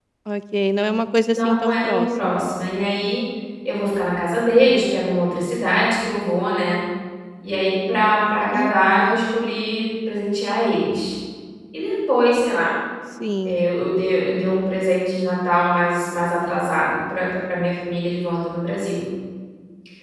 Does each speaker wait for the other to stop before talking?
No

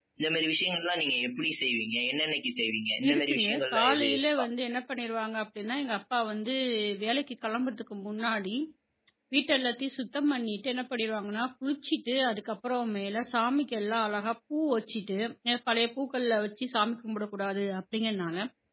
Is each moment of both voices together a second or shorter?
No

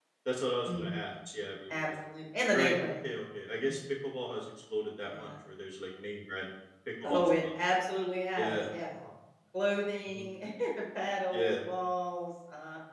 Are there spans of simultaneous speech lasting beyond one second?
No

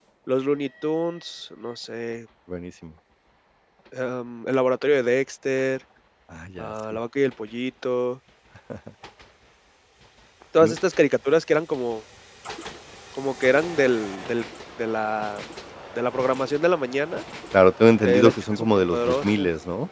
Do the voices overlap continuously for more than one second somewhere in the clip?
Yes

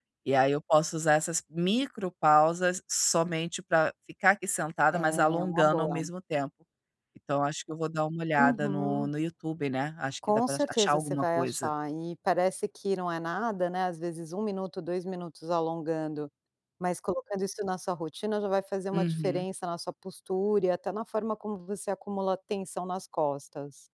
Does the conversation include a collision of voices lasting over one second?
Yes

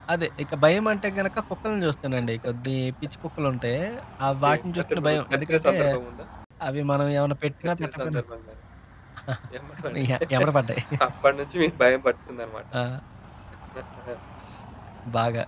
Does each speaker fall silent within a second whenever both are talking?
No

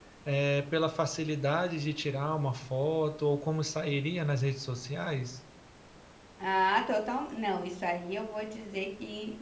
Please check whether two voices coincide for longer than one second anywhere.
No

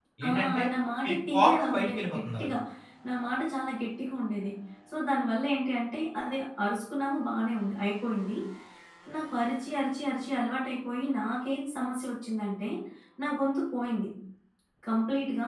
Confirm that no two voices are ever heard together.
No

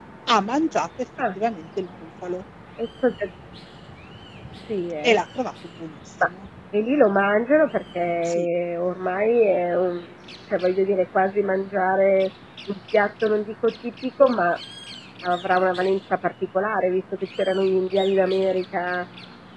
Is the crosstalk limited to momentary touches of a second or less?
Yes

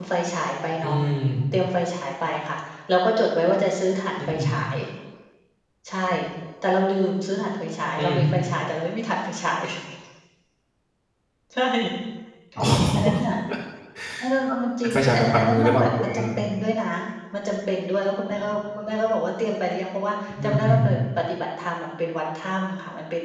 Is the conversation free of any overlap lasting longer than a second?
No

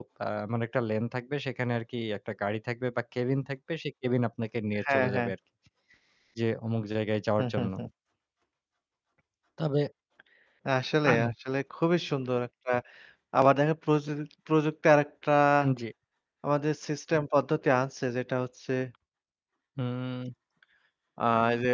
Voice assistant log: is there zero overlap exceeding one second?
Yes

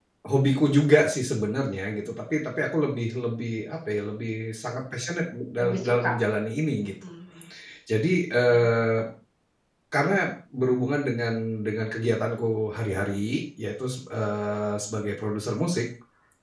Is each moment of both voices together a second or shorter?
Yes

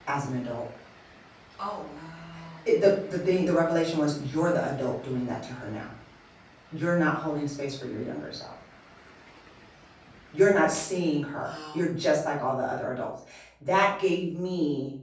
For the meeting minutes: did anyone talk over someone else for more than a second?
No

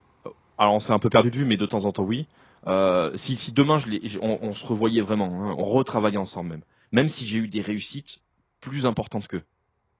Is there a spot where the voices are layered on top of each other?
No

